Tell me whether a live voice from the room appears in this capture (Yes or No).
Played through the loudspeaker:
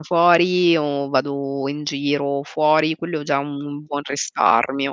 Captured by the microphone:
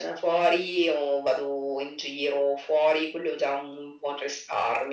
No